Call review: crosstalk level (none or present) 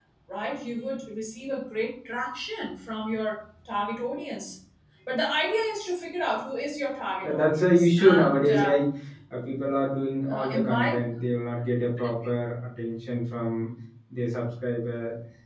present